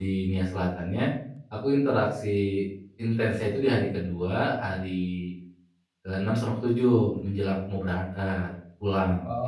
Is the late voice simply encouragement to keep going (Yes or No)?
No